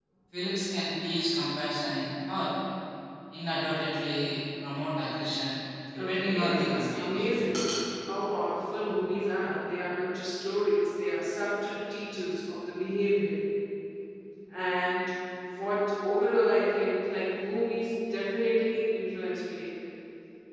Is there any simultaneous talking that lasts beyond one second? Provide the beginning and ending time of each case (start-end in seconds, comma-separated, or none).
6.0-7.3